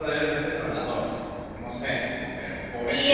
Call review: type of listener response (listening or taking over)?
taking over